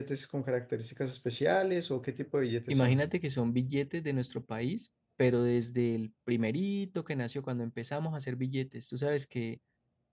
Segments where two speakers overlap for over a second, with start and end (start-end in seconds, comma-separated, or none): none